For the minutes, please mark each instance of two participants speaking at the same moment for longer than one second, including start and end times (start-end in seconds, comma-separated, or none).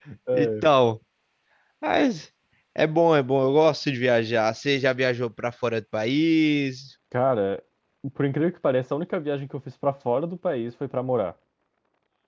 none